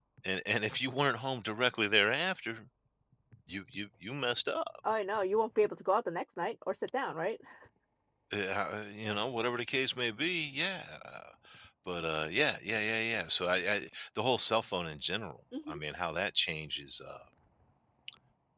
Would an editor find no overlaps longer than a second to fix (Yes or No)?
Yes